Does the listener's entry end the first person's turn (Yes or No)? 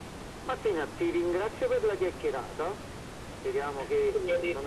No